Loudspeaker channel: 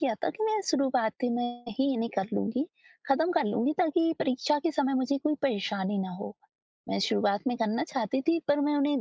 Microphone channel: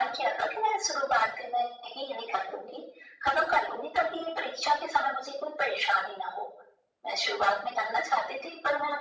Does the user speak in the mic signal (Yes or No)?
No